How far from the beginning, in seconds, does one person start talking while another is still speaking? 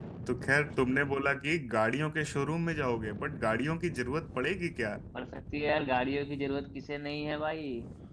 none

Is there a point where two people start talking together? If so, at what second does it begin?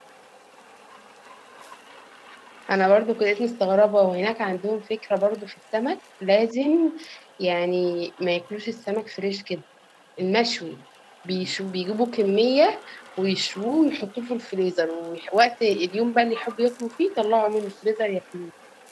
none

